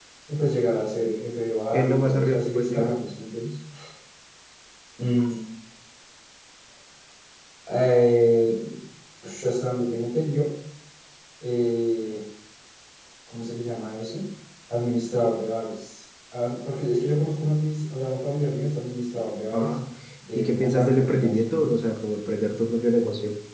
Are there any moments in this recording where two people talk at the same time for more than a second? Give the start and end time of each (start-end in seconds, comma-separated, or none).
1.7-3.0, 20.4-21.8